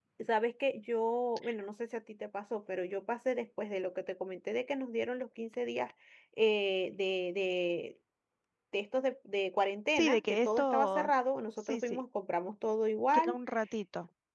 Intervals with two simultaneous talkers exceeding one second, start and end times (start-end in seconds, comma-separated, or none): 9.9-11.1